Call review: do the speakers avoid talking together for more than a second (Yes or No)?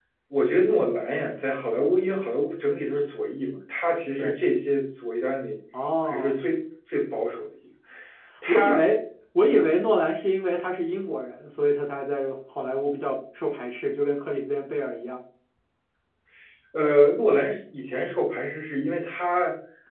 Yes